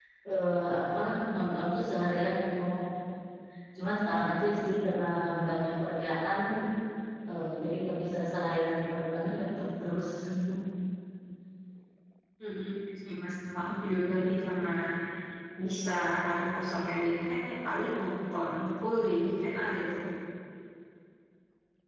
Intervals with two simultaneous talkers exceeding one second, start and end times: none

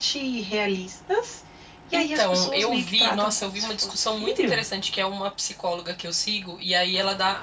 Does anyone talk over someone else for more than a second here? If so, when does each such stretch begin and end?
2.0-4.6

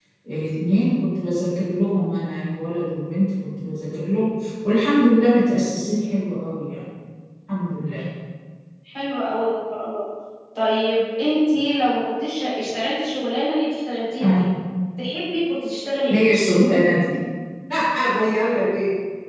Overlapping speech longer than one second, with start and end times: none

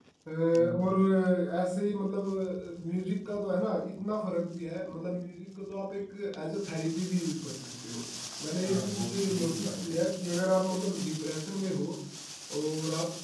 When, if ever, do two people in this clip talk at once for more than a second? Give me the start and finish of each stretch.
8.6-10.0

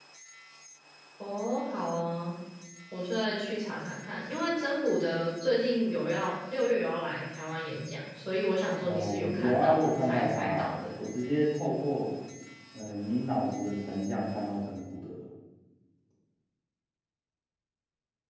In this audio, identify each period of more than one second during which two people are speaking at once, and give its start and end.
8.8-10.8

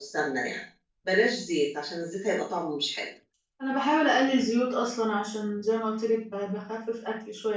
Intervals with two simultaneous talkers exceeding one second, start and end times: none

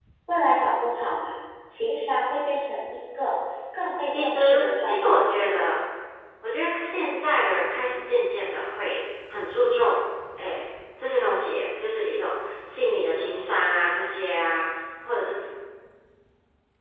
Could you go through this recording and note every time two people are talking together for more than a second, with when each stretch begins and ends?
4.1-5.6

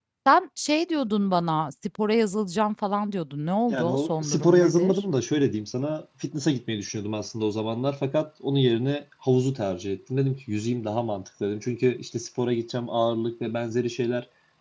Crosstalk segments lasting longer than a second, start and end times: 3.7-5.0

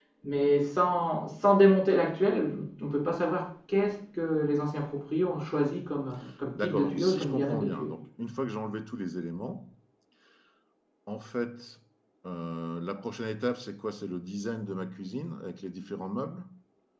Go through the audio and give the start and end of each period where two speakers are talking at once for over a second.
6.6-7.9

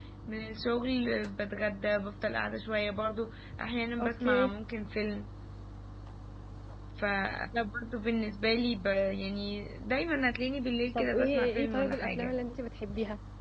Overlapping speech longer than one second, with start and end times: 10.9-12.4

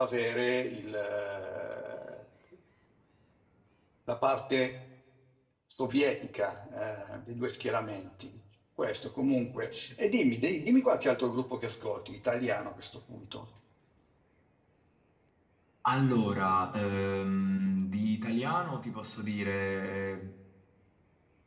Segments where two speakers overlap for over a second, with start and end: none

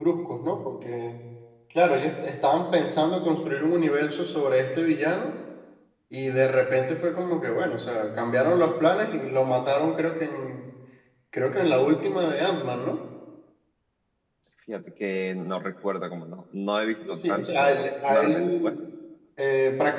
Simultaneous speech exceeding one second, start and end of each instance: 17.1-18.7

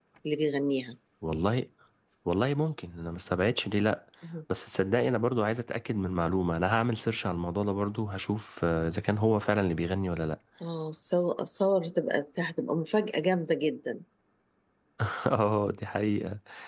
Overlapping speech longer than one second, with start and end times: none

